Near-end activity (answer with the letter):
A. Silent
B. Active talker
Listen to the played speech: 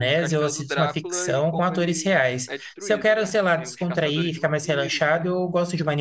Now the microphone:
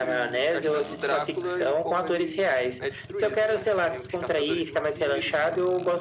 A